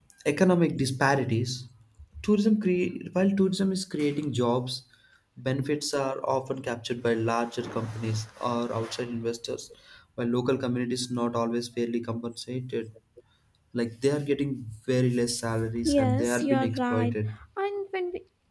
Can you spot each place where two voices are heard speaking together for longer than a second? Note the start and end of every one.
15.8-17.1

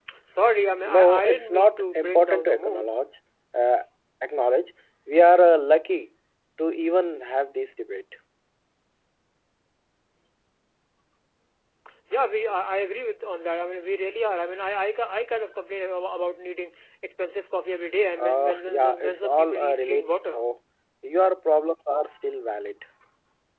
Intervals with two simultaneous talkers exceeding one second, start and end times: 0.8-2.9, 18.2-20.4

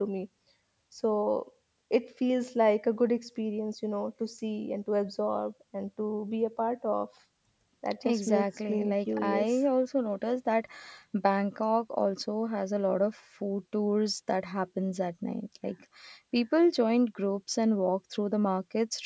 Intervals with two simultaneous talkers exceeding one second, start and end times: 8.0-9.6

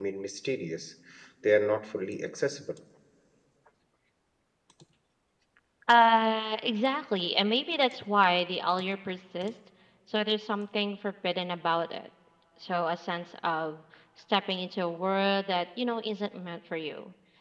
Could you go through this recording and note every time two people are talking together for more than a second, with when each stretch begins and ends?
none

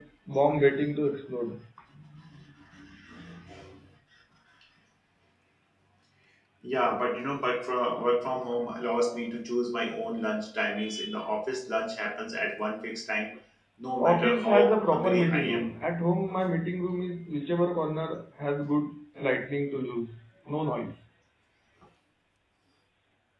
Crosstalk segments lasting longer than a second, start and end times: 14.0-15.7

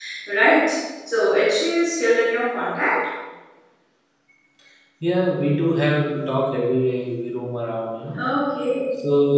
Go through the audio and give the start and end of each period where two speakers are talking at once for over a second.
none

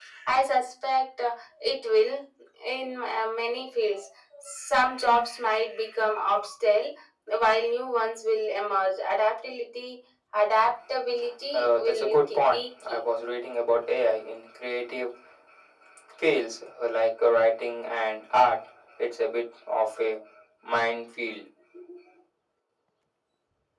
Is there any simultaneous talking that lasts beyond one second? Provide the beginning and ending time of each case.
11.5-13.0

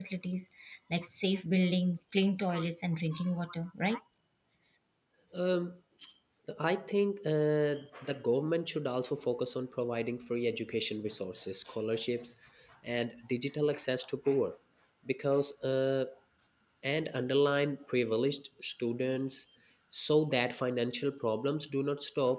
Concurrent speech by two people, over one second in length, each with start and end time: none

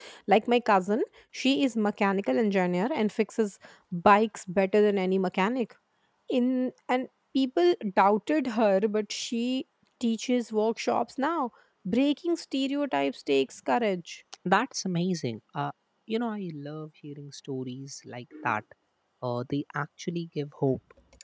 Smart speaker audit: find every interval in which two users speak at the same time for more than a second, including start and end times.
none

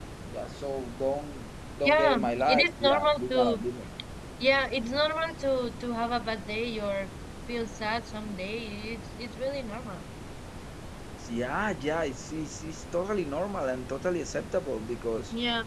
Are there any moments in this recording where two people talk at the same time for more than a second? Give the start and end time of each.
1.9-3.6

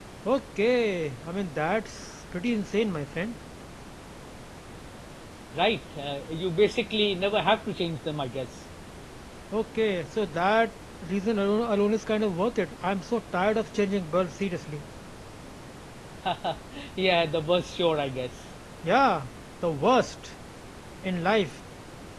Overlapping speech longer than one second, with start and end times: none

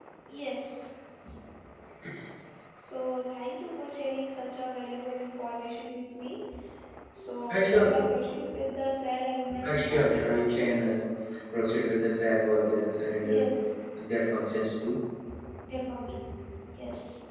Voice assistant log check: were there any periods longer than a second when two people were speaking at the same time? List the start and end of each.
9.6-10.9

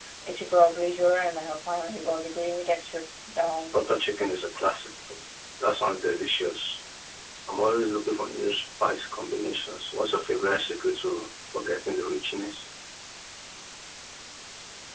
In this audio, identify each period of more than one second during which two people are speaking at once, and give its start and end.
none

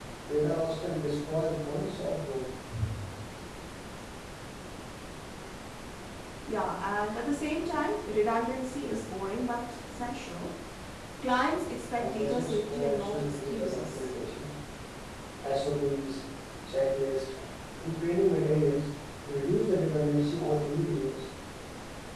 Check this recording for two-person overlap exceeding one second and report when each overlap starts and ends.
12.0-14.1

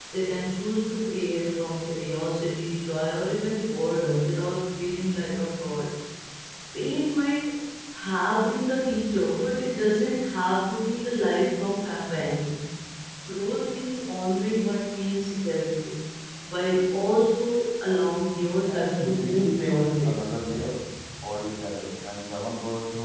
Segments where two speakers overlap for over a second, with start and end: 18.7-20.1

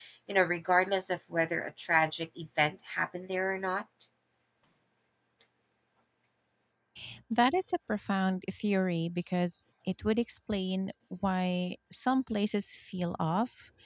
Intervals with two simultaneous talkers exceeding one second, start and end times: none

